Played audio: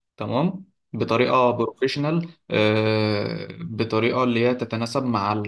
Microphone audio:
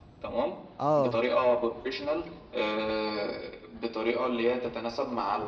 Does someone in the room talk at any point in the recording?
Yes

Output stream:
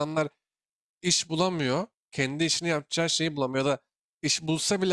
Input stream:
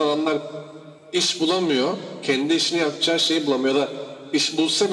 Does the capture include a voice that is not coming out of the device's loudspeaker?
No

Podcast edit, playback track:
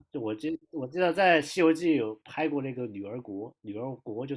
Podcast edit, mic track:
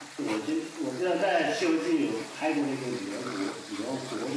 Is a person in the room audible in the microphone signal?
No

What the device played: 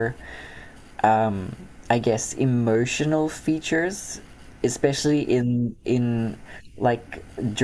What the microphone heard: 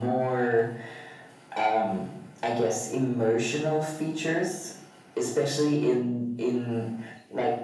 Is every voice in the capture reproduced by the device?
Yes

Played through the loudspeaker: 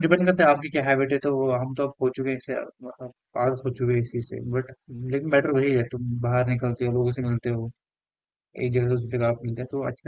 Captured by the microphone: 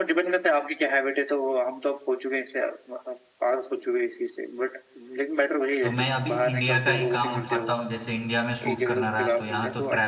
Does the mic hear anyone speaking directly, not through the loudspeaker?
Yes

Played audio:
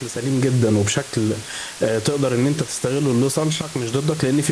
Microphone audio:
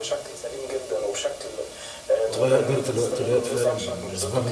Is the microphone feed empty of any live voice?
No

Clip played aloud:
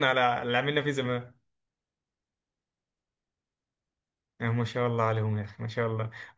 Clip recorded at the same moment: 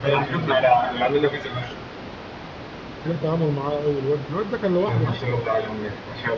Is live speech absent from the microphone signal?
No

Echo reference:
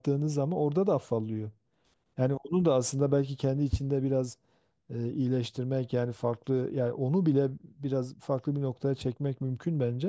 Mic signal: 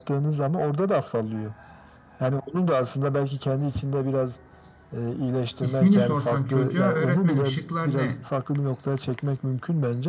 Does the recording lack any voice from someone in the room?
No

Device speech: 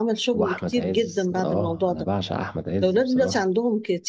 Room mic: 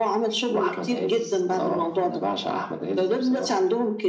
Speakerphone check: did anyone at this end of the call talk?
No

